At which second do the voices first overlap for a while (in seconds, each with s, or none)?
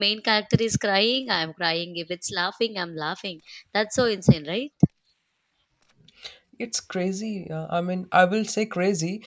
none